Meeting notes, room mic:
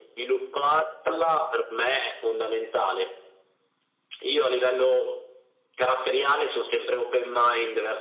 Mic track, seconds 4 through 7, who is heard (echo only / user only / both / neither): echo only